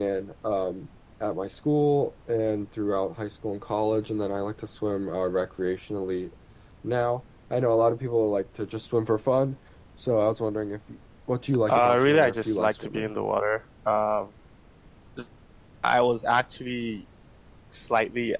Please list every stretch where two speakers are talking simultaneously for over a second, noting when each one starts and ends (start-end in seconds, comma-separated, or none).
11.7-13.1